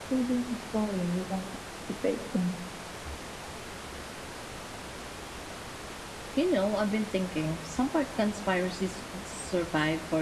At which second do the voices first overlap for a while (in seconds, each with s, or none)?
none